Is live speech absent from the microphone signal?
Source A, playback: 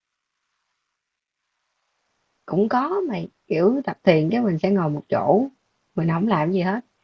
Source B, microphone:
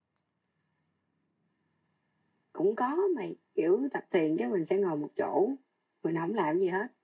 Yes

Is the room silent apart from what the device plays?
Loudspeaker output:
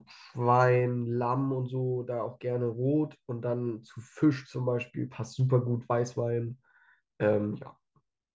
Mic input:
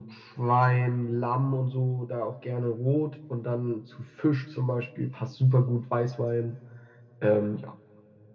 Yes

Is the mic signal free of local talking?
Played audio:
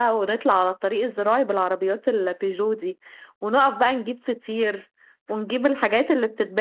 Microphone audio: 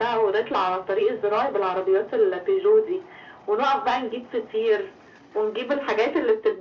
Yes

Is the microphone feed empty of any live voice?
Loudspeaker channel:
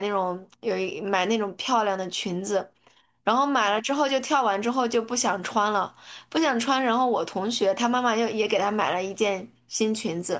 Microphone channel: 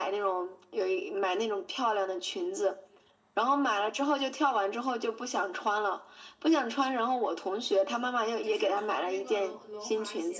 No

